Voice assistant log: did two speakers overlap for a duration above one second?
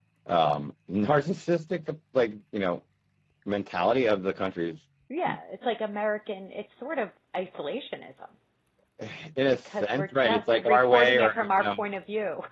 Yes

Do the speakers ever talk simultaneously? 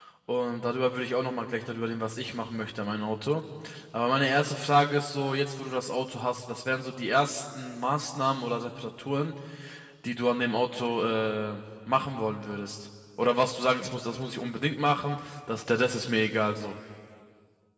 No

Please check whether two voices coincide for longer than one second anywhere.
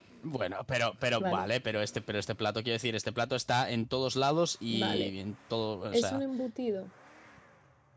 No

